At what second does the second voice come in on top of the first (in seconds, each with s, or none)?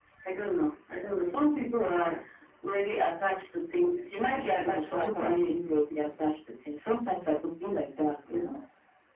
4.3 s